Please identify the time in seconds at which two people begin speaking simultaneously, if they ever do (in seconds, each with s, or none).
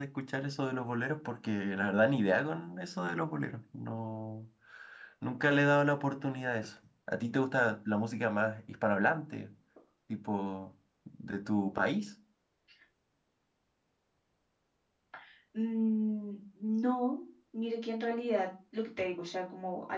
none